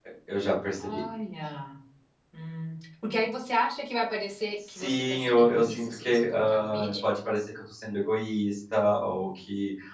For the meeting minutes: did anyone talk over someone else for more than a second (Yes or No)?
Yes